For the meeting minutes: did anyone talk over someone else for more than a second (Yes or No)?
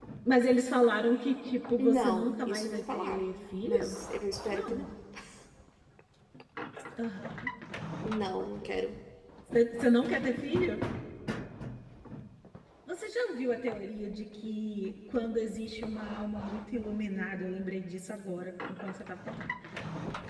Yes